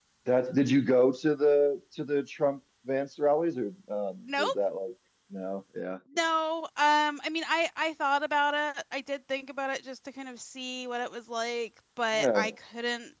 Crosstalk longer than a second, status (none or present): none